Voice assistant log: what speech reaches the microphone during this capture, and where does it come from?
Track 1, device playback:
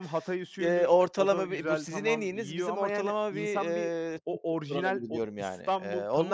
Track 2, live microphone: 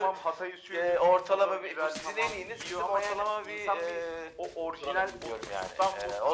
echo only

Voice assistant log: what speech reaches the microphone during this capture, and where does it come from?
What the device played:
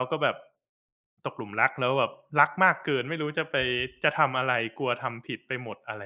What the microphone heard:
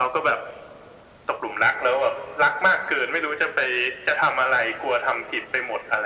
echo only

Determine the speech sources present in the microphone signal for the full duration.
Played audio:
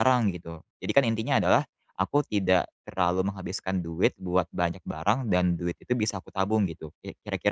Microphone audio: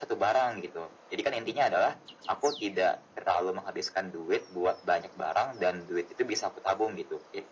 echo only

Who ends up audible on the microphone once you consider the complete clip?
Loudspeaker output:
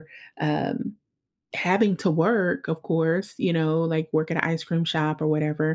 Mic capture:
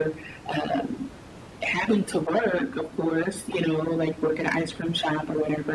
echo only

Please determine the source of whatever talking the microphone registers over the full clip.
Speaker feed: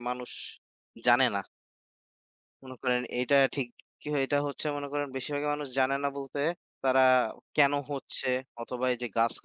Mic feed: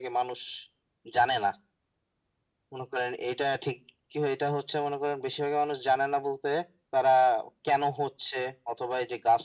echo only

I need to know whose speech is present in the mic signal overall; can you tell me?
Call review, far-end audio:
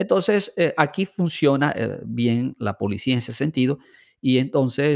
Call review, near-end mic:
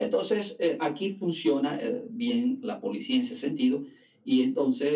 echo only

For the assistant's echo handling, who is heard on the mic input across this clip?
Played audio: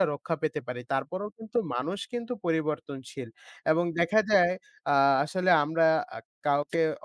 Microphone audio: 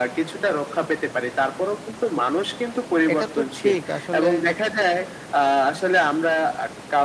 both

